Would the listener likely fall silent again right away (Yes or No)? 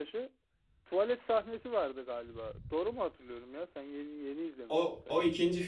No